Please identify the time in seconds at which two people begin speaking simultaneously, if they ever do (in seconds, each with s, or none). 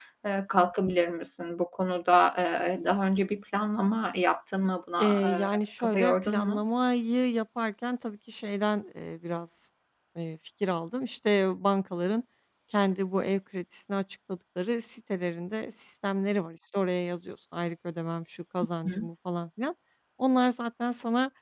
5.0 s